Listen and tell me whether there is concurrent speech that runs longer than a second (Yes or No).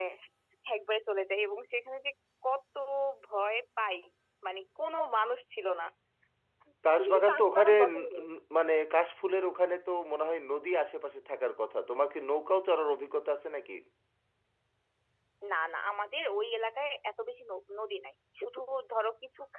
Yes